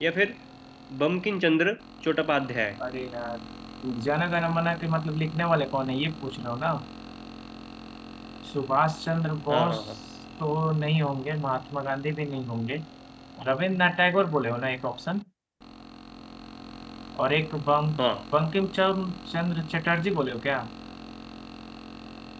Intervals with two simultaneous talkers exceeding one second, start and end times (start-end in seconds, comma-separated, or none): none